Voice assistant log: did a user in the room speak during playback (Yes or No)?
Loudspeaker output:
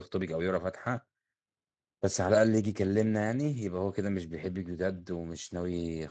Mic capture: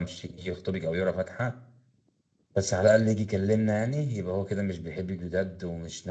No